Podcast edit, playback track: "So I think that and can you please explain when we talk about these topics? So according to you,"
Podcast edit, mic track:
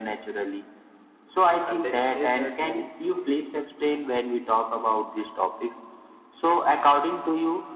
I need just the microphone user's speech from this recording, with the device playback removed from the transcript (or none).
and they stays at home